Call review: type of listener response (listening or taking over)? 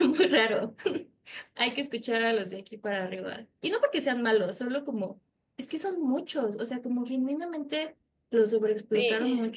listening